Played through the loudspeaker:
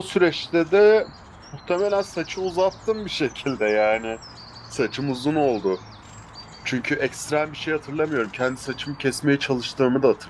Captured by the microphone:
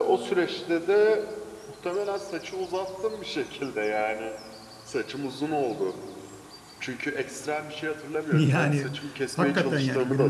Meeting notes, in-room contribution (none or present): present